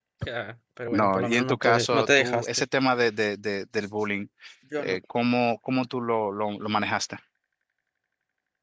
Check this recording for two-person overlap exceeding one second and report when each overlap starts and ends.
0.9-2.6

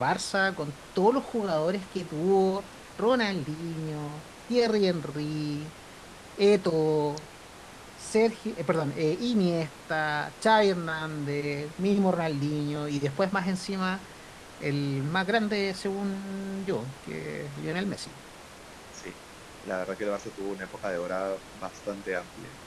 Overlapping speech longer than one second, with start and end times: none

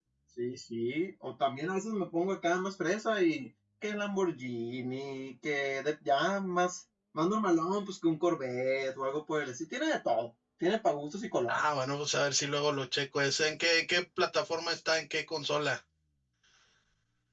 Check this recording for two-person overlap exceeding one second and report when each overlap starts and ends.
none

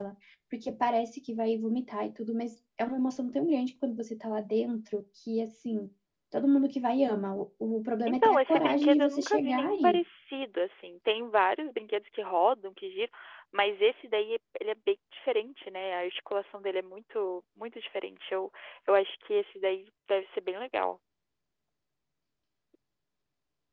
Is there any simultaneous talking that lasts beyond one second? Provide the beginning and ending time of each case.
8.0-9.7

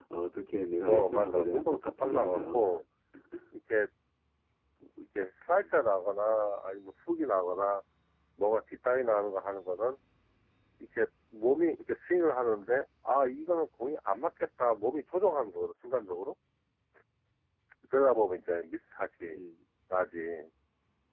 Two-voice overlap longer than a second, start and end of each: 0.9-2.6

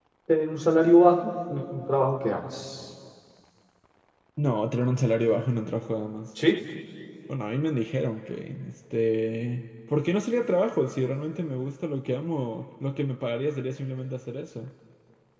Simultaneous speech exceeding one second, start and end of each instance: none

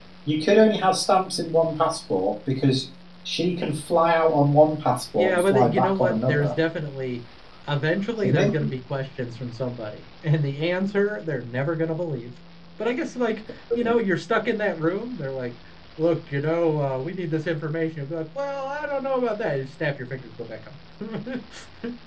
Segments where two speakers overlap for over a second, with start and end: 5.2-6.5

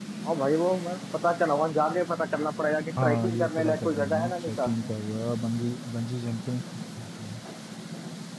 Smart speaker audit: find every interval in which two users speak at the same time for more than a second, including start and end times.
3.0-4.9

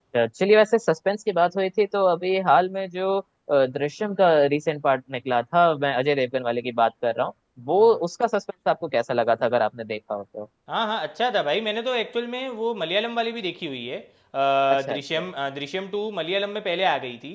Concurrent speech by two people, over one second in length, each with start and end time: none

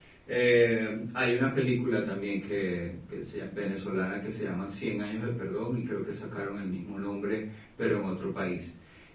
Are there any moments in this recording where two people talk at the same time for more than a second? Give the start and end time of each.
none

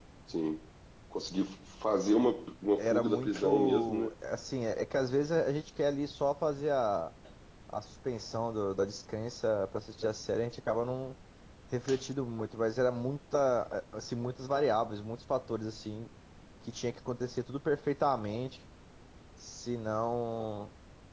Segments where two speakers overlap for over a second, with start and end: 2.8-4.1

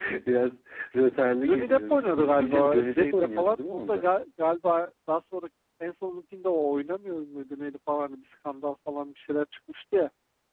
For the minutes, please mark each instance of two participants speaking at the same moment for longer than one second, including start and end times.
1.4-4.1

